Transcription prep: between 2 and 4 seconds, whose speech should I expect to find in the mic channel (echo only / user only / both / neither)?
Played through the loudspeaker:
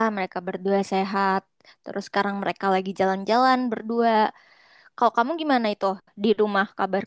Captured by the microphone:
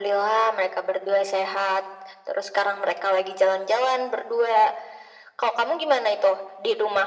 echo only